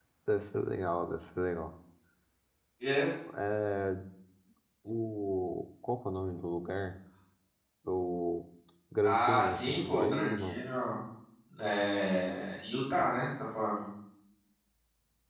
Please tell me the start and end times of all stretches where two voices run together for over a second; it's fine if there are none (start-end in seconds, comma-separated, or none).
9.0-10.6